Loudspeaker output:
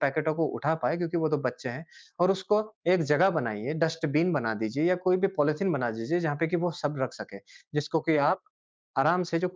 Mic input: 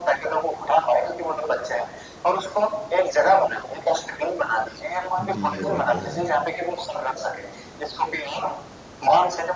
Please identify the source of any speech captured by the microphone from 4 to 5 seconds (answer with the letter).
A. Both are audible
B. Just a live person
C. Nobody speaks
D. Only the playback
D